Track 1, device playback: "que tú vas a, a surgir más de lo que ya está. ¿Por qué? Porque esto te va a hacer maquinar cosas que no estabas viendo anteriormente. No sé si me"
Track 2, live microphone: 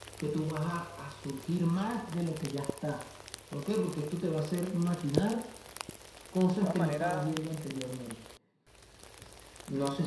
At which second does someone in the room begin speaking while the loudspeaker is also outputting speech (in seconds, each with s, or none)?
6.6 s